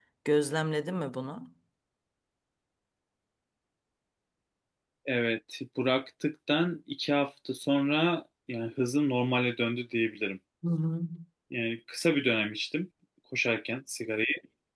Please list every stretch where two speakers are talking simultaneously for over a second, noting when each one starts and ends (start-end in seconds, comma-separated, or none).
none